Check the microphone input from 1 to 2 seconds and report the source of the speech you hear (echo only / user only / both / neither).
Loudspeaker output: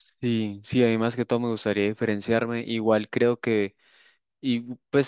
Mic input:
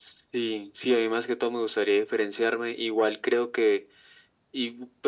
echo only